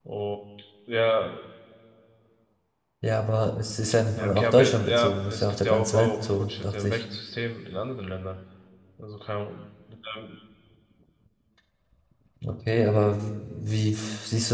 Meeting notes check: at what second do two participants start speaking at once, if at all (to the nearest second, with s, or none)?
4 s